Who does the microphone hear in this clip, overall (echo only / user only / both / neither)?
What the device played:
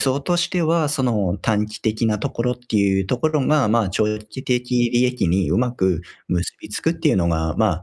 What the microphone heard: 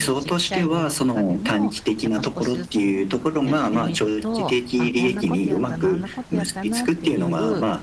both